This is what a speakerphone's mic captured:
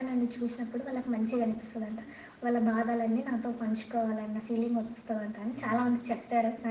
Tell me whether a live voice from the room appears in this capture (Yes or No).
Yes